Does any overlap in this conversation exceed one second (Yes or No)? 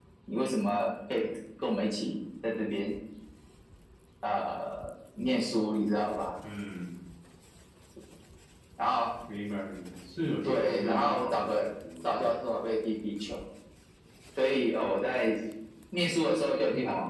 Yes